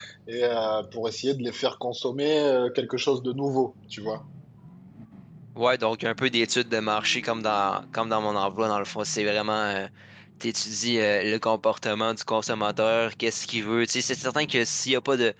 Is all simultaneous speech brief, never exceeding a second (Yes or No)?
Yes